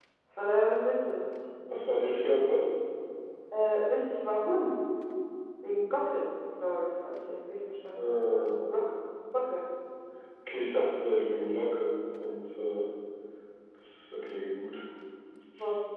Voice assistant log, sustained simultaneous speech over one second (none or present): none